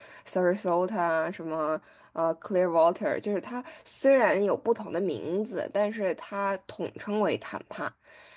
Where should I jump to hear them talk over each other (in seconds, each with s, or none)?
none